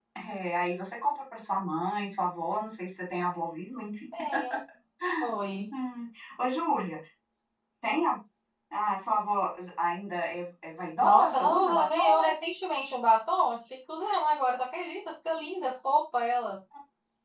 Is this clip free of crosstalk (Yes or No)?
No